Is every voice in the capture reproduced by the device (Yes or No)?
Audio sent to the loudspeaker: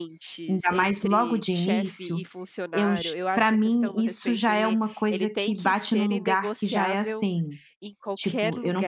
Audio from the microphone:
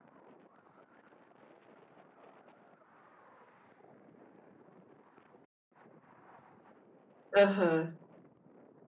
No